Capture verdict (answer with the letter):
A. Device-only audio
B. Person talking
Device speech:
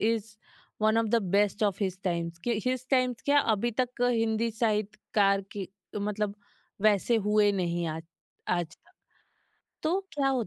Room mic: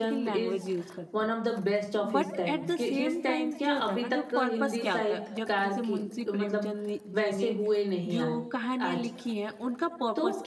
B